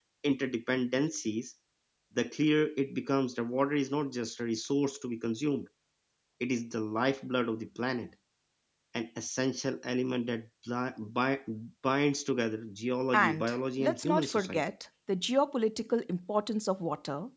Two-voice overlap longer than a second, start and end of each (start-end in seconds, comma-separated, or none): 13.1-14.6